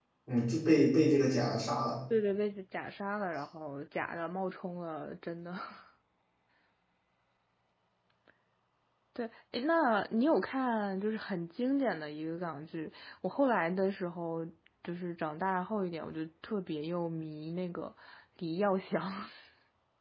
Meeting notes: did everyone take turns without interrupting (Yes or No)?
Yes